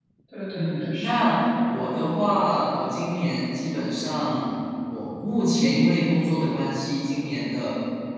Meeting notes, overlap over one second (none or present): present